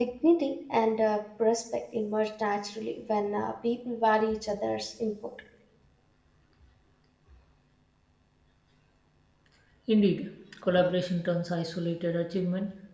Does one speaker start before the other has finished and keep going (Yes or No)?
No